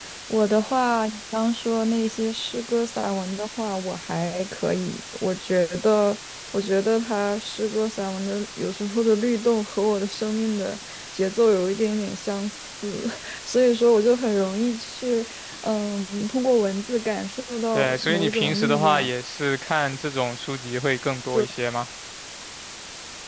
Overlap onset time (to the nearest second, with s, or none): 18 s